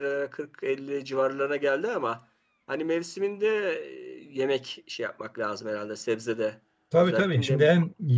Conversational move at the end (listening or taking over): taking over